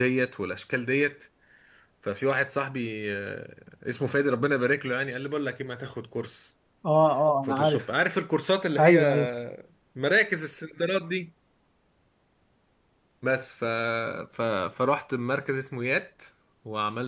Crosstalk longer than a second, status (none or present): none